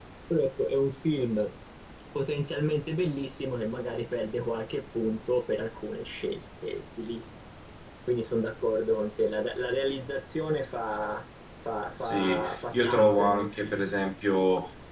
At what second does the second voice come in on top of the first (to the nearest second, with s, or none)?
12 s